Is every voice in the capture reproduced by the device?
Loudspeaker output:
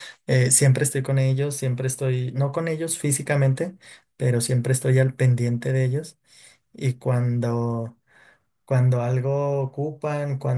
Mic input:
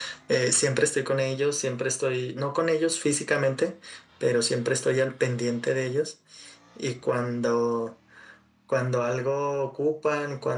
Yes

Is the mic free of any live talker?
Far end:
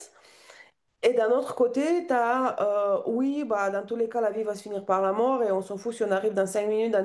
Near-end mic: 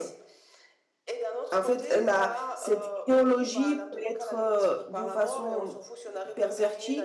No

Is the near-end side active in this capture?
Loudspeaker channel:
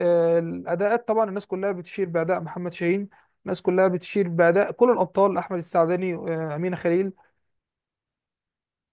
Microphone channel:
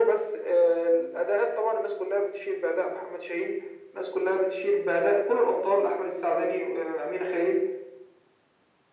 No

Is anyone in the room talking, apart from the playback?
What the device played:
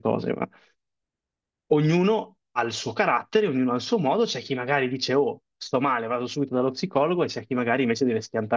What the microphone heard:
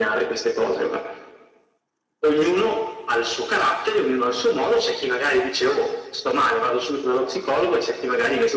No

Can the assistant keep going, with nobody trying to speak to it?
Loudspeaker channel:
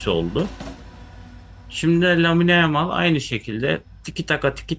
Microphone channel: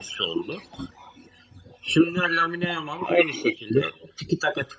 Yes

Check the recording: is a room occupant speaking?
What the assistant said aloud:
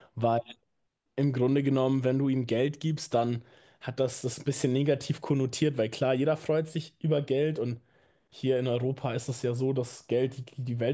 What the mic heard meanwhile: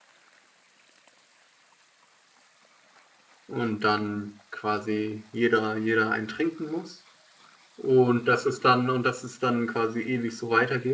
Yes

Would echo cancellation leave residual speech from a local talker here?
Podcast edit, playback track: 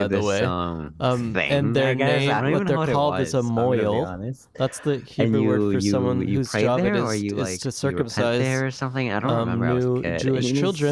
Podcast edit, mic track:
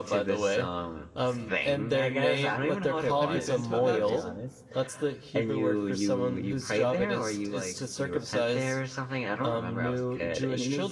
Yes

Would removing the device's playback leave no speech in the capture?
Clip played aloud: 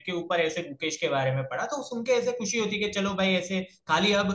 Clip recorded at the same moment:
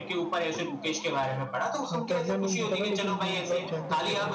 No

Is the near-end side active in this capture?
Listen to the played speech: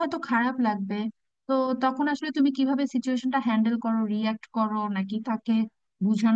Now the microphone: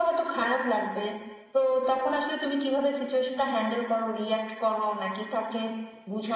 No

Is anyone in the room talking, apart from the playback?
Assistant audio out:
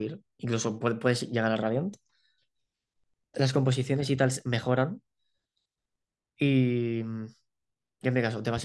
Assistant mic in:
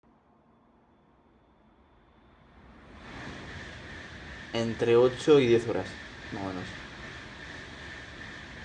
Yes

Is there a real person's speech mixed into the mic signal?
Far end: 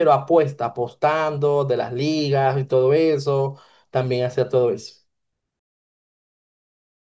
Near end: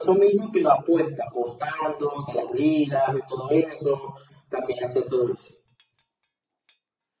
No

